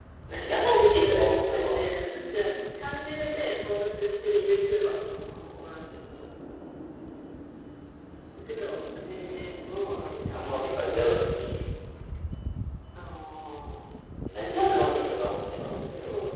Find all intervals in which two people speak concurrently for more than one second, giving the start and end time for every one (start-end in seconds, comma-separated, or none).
0.5-1.9